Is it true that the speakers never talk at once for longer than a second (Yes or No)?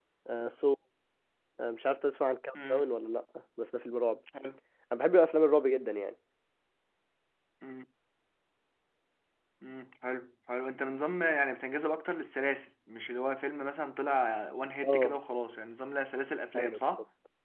Yes